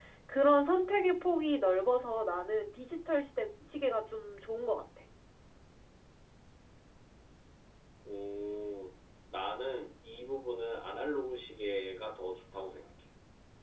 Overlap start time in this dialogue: none

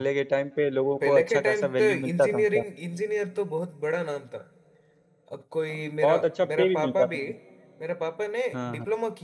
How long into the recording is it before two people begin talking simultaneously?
1.1 s

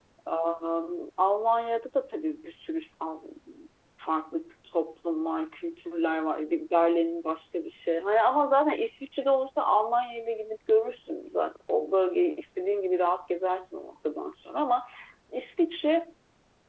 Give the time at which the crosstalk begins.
none

